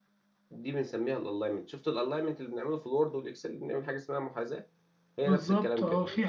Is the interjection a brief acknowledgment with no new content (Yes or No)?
No